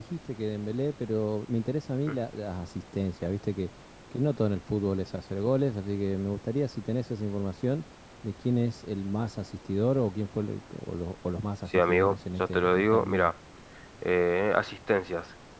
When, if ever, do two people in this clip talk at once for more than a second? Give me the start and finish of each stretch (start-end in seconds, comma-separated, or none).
11.7-13.3